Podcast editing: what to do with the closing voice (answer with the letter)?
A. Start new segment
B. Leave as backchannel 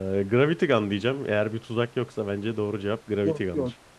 A